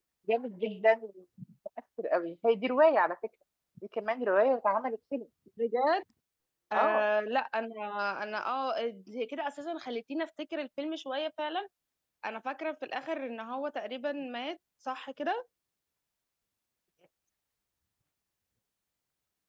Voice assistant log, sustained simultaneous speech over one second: none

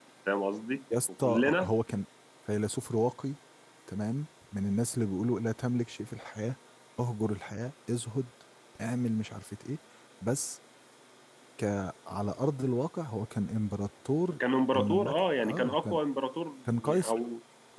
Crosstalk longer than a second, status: present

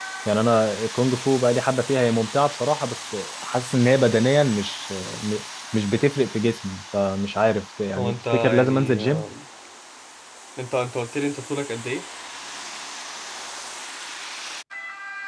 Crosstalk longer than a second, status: present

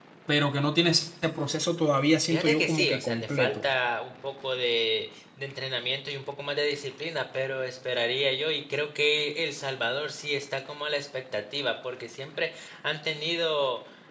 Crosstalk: present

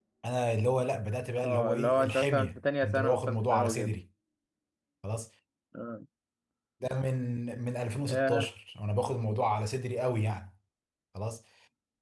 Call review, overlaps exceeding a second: present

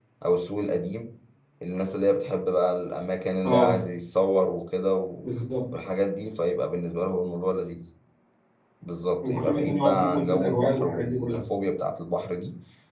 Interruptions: present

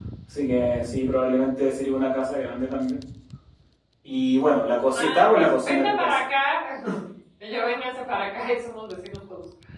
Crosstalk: present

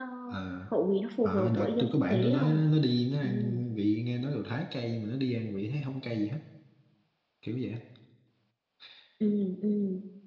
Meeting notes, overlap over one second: present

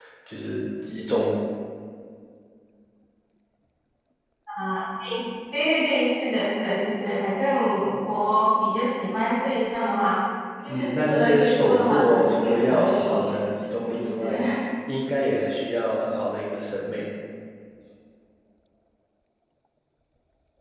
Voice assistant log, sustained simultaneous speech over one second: present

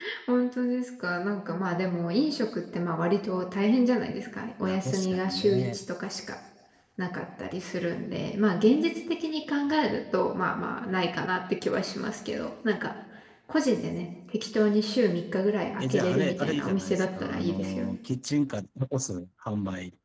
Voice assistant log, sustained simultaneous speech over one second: present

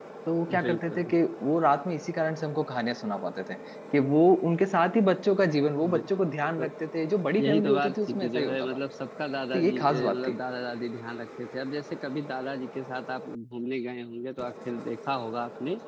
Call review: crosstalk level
present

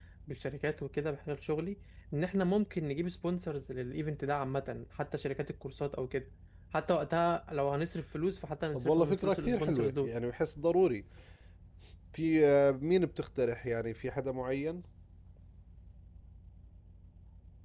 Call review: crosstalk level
present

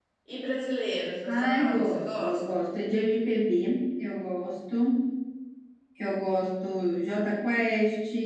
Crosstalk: present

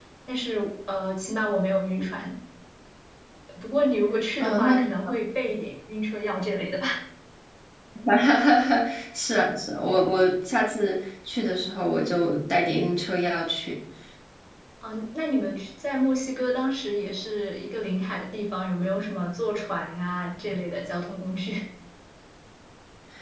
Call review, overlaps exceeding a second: none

